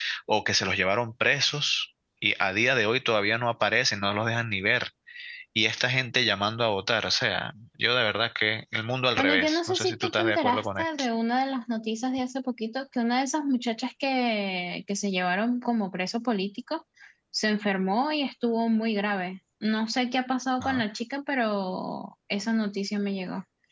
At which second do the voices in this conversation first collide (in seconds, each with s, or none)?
9.2 s